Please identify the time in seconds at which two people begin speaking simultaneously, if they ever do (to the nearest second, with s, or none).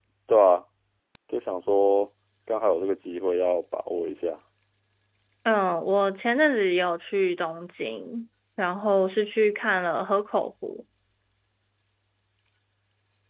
none